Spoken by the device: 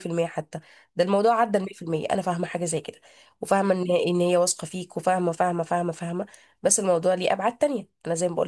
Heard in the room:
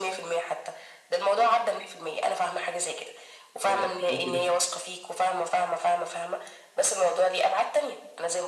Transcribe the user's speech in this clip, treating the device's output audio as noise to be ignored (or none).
آه، وانت داخل